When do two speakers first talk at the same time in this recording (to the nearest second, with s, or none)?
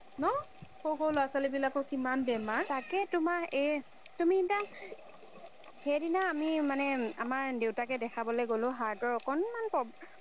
none